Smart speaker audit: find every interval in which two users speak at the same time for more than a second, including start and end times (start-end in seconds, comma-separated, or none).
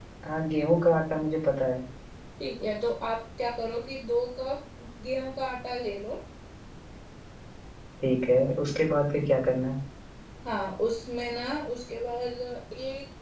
none